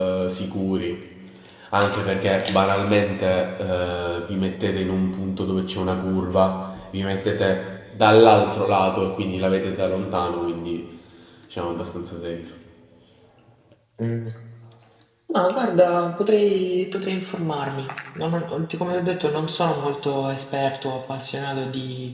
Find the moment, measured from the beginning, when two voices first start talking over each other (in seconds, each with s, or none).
none